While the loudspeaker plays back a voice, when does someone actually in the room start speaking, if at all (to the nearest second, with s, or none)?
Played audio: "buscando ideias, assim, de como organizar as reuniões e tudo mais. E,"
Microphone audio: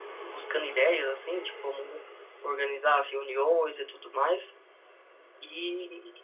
none